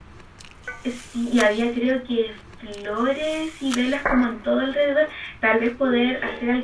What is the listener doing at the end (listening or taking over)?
listening